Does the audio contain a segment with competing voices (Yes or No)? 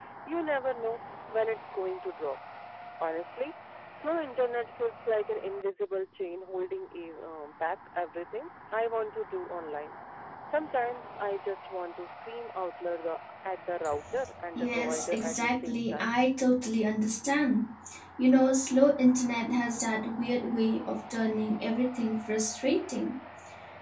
Yes